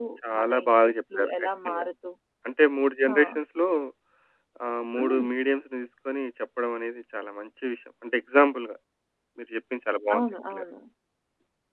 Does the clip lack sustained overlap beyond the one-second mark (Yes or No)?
No